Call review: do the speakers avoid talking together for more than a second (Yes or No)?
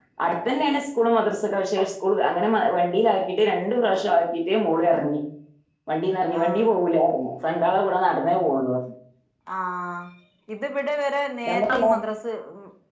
Yes